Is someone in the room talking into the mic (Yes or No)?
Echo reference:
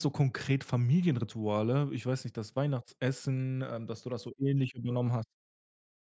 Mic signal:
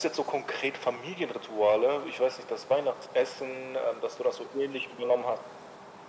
No